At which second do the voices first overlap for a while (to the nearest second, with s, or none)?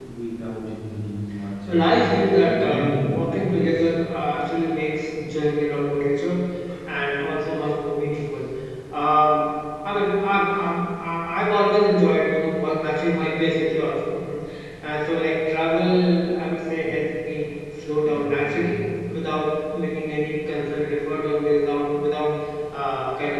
2 s